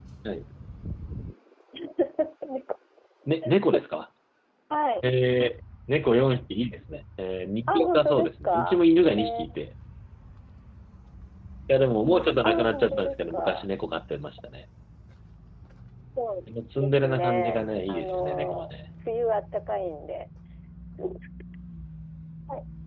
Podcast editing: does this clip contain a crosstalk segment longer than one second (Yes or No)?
Yes